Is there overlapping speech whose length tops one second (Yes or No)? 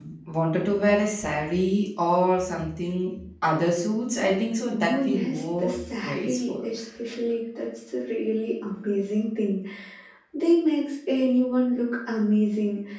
Yes